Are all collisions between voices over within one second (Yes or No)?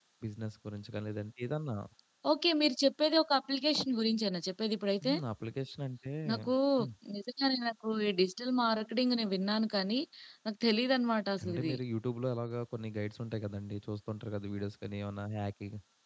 Yes